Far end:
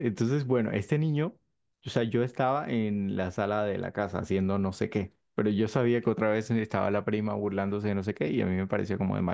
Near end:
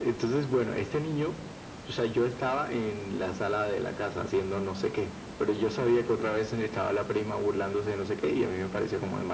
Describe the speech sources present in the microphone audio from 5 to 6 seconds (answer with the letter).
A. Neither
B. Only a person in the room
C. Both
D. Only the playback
D